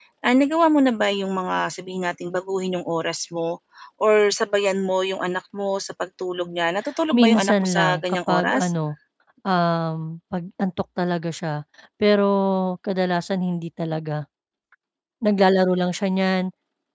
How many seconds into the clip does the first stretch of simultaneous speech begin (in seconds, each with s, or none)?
7.1 s